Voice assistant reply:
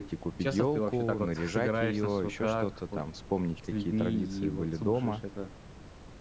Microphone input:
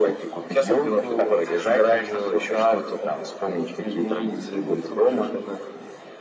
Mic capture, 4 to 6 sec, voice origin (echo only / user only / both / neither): echo only